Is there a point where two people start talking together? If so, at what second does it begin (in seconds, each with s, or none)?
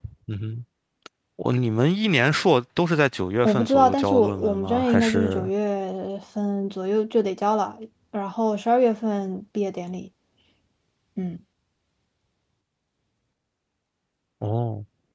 3.4 s